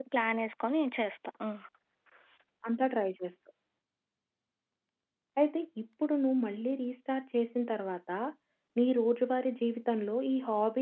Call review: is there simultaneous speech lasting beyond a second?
No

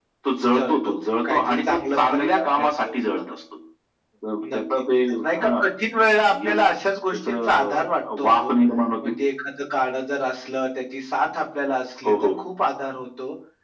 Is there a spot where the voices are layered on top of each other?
Yes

